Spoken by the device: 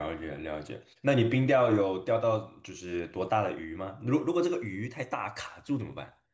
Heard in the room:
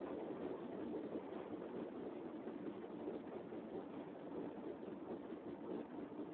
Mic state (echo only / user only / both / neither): neither